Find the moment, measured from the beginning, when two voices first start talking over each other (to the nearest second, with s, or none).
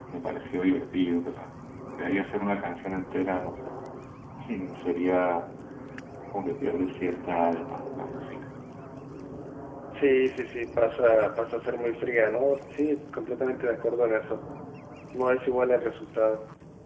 none